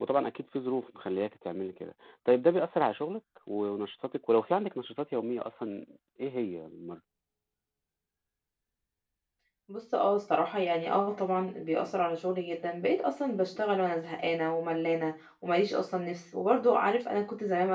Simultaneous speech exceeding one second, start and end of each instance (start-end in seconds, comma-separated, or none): none